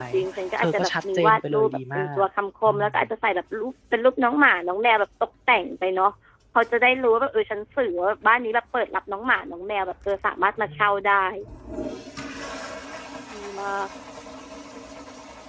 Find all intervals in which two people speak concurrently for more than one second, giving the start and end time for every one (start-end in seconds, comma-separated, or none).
0.6-2.2